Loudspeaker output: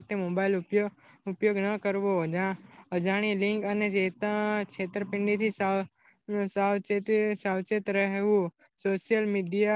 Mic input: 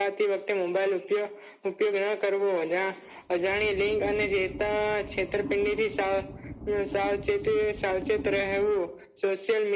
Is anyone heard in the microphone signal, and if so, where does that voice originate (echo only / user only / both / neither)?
echo only